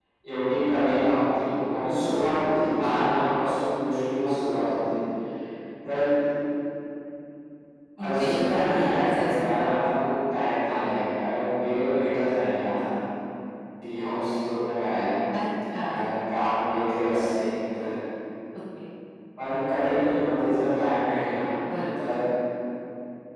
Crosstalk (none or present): present